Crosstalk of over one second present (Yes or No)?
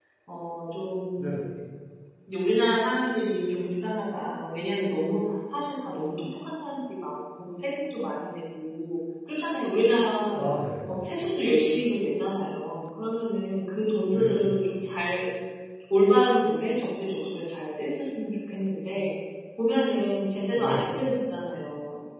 No